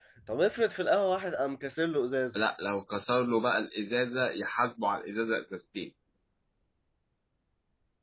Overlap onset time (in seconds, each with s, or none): none